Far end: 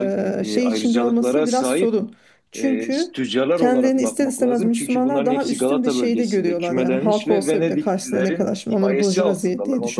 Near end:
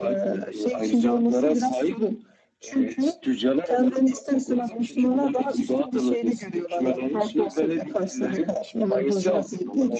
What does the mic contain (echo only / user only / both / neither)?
echo only